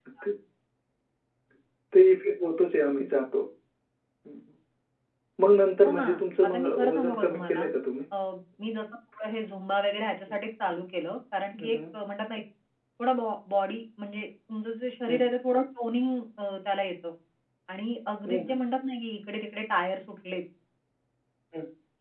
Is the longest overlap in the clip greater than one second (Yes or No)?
Yes